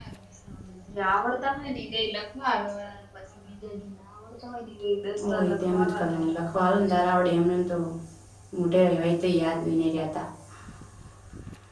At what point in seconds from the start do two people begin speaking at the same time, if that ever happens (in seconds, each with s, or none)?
5.2 s